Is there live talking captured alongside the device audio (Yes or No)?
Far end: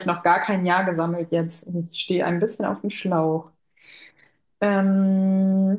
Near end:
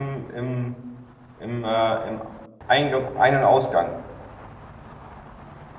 Yes